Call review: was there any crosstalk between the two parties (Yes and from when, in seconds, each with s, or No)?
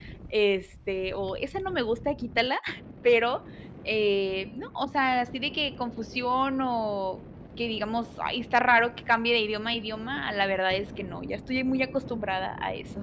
No